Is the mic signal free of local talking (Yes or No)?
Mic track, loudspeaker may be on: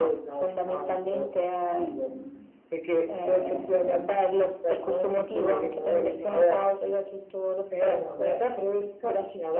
Yes